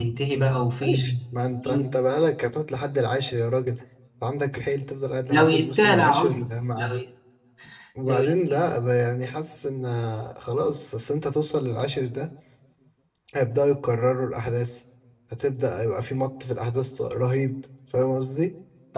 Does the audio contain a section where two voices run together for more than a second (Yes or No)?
Yes